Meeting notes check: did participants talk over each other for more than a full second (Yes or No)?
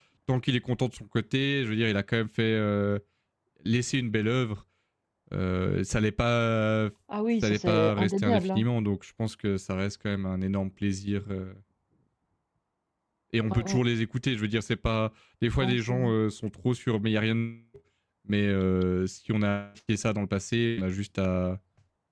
Yes